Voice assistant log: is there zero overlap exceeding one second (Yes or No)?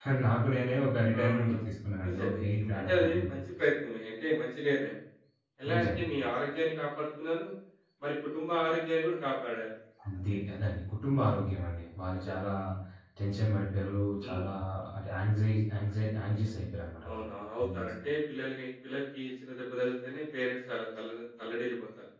No